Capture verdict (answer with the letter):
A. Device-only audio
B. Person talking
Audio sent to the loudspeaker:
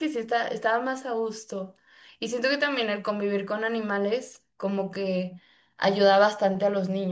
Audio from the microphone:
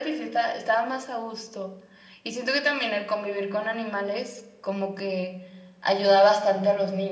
A